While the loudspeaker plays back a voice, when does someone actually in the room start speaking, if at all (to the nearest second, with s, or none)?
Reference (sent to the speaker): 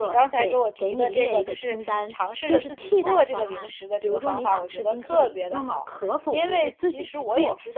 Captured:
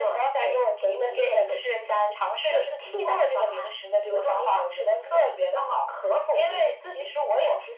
none